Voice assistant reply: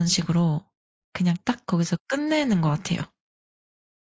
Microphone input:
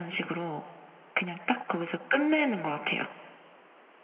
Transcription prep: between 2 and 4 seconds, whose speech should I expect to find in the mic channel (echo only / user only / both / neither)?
echo only